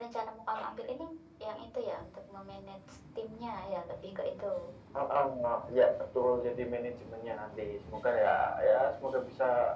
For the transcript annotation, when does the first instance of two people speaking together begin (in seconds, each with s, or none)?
none